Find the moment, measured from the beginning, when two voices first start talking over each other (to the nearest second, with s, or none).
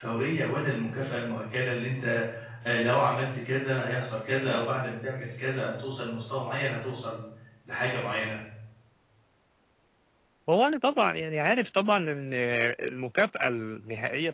none